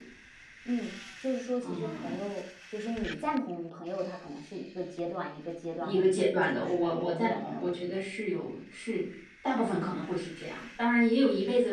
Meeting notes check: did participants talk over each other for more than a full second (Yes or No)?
Yes